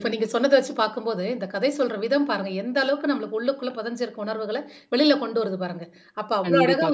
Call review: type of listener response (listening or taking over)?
listening